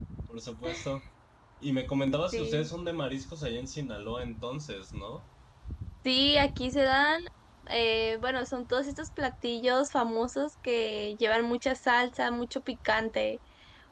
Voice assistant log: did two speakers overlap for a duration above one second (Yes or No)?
No